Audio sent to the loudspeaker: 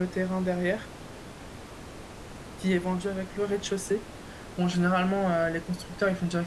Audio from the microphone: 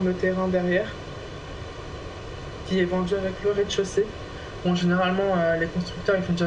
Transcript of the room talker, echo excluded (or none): none